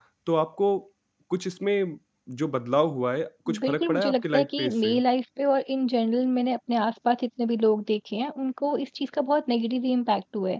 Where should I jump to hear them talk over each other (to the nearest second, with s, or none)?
3 s